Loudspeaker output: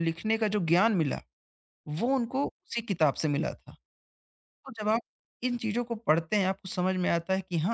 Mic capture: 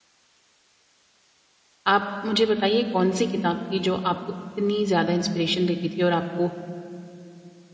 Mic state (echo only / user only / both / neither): user only